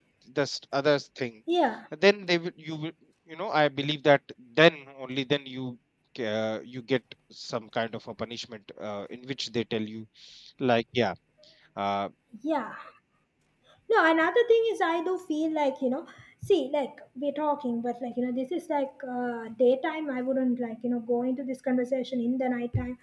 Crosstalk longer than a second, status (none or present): none